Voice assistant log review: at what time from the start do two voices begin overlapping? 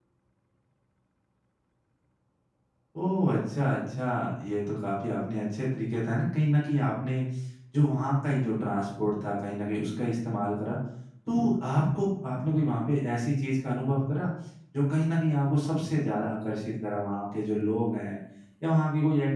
none

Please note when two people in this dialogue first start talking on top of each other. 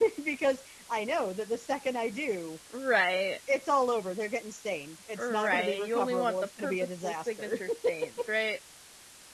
5.2 s

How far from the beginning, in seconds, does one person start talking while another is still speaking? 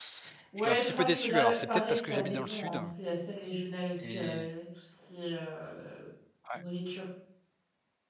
0.6 s

